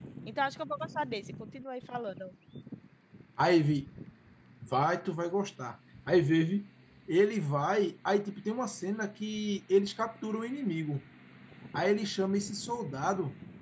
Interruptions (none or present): none